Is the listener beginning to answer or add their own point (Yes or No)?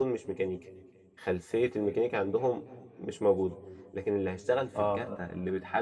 No